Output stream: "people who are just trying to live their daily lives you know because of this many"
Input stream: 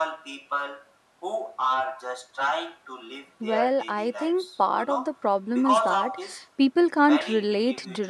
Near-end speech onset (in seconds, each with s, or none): 3.4 s